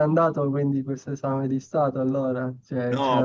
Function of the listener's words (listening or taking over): taking over